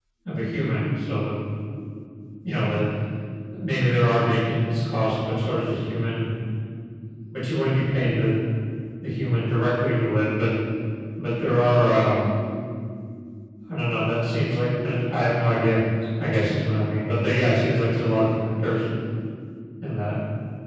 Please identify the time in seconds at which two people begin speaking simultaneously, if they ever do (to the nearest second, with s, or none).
none